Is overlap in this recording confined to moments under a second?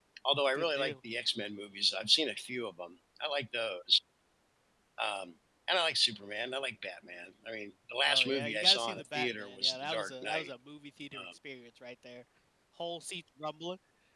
No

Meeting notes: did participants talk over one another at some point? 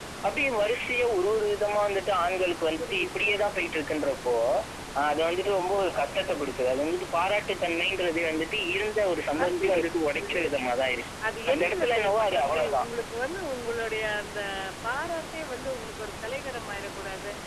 Yes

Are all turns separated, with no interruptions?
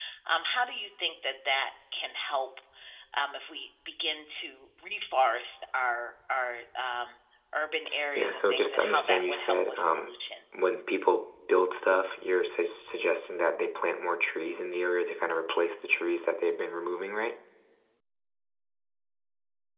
No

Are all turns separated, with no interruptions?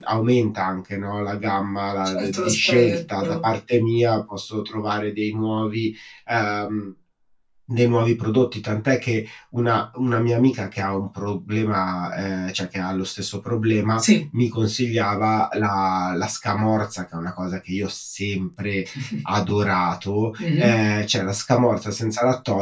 No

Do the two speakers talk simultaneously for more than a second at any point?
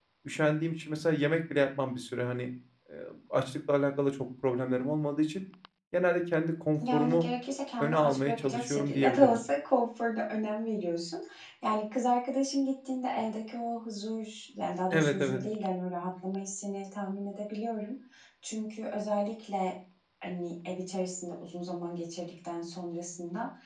Yes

